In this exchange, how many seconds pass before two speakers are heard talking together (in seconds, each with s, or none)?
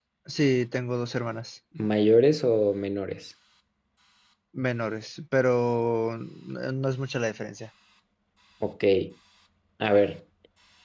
none